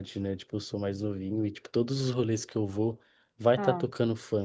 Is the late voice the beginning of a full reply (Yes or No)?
No